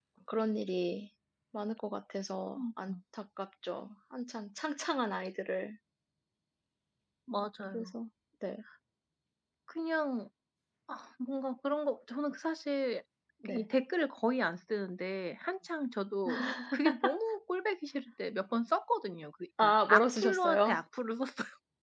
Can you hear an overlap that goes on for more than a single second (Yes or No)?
Yes